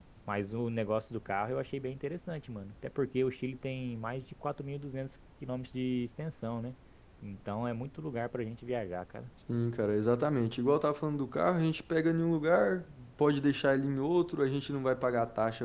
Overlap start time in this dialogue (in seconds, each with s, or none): none